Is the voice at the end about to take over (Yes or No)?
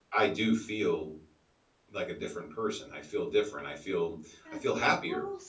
Yes